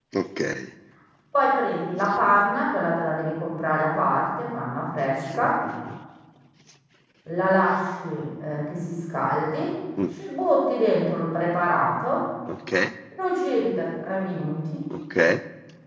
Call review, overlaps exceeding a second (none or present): none